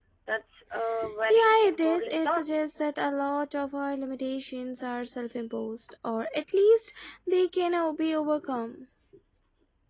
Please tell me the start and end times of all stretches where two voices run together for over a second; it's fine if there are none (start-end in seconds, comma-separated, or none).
1.1-2.4